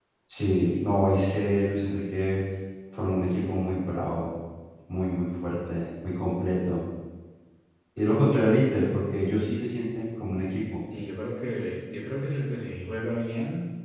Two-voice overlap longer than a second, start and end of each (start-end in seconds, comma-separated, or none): none